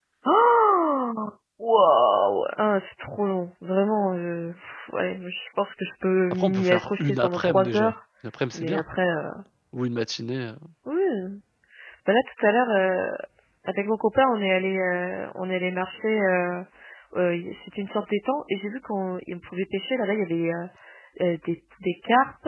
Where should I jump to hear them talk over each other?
6.3 s

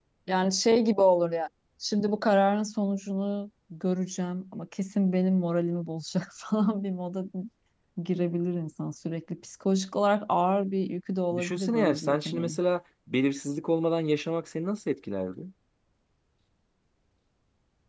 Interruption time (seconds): 11.3 s

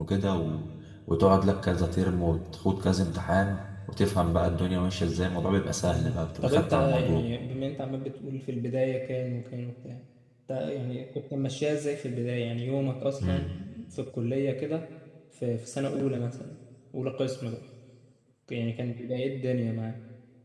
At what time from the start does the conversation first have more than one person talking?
5.9 s

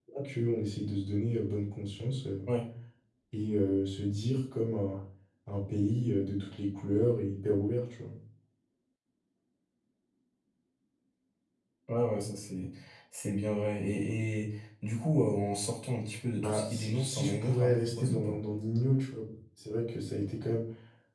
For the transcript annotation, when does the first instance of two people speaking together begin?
16.4 s

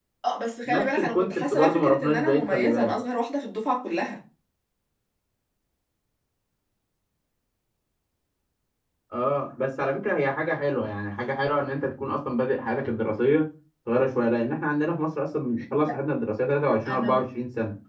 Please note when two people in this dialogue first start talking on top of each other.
0.7 s

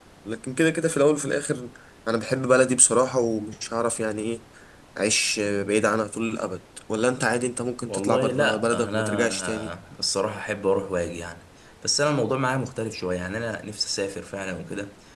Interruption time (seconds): 7.8 s

